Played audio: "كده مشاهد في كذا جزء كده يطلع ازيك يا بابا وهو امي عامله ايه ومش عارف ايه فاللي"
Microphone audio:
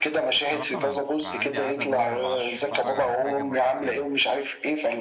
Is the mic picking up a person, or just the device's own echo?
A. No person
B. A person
B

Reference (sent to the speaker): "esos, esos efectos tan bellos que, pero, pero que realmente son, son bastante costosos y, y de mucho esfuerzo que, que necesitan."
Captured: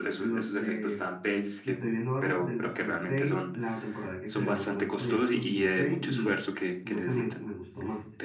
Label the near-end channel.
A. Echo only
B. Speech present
B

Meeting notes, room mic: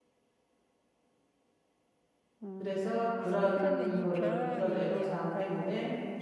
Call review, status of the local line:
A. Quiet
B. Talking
B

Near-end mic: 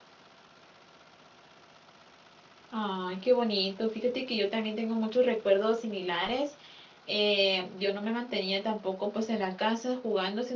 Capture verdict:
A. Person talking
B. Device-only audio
A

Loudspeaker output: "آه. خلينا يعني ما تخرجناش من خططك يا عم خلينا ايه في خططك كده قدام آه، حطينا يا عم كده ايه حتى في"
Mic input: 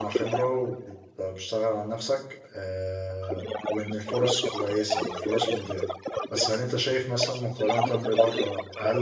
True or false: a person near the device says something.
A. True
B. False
A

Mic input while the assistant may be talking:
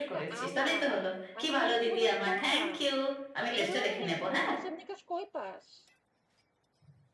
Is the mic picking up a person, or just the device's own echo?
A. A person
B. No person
A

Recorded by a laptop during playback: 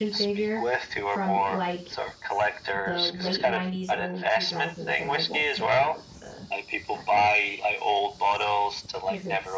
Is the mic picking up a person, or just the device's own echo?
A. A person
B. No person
A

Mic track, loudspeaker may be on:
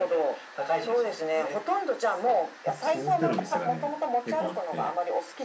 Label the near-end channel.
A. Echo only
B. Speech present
B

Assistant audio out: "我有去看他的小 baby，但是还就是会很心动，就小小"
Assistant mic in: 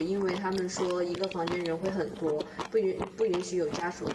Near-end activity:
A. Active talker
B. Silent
A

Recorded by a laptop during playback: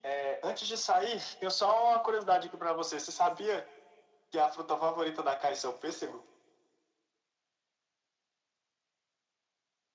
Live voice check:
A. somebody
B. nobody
B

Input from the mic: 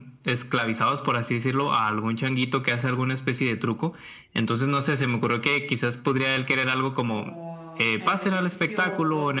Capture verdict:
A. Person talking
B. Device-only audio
A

